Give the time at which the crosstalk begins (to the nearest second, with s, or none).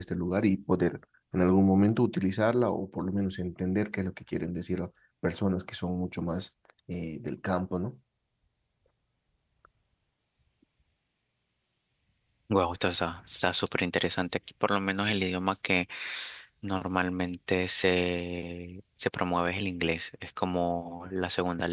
none